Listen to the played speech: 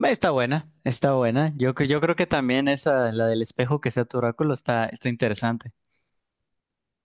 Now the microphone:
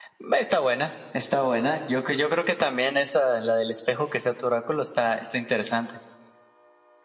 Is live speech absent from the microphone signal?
Yes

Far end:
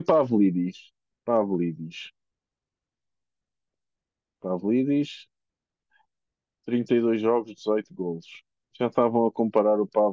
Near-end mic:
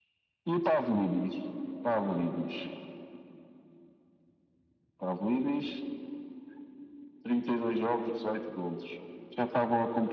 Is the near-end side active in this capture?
No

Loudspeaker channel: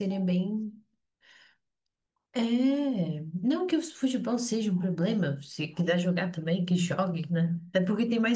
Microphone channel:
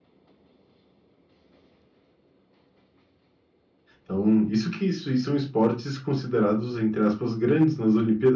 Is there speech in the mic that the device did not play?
Yes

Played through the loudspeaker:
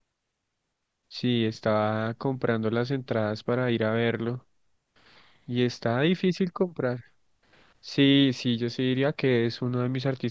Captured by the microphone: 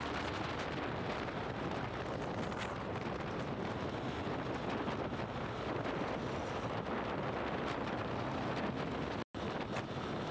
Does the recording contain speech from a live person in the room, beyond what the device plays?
No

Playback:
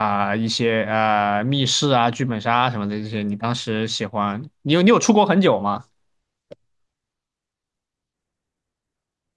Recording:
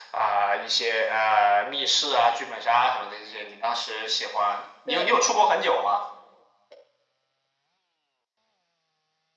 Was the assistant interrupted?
Yes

